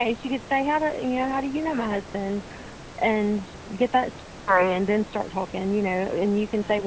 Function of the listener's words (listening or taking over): listening